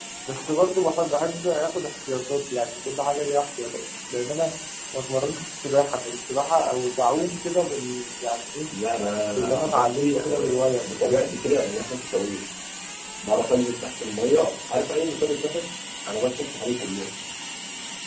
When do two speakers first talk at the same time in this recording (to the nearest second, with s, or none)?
9 s